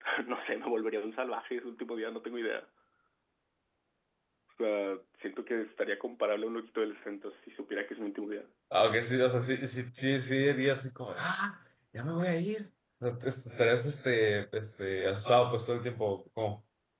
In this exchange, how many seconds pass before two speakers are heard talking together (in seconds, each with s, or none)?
none